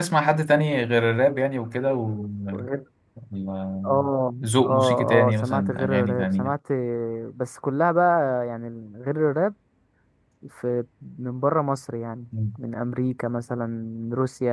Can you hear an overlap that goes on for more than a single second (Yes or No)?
Yes